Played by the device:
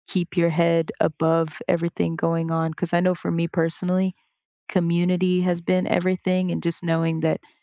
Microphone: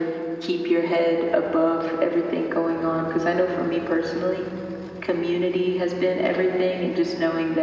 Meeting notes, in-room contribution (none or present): none